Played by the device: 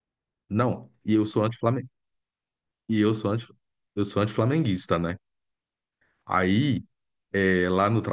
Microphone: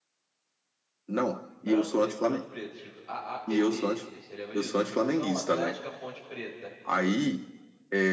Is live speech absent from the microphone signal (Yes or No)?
No